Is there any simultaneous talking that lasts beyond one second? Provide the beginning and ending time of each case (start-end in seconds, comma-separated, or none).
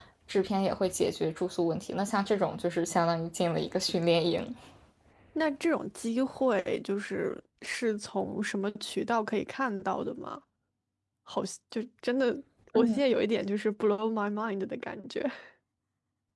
none